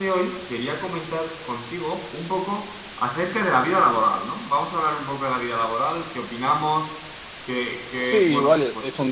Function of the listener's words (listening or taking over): taking over